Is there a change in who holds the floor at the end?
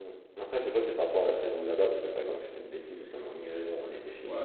Yes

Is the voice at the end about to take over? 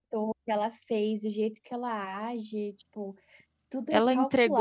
Yes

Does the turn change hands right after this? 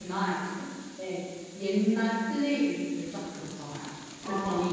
No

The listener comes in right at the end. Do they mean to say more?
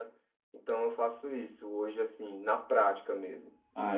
Yes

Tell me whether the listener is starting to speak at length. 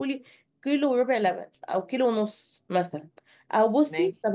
No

